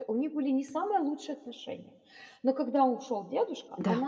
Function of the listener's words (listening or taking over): listening